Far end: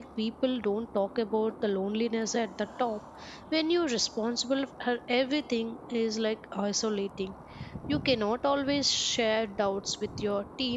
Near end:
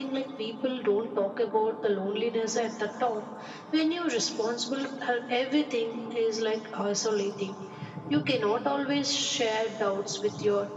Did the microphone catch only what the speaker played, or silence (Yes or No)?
Yes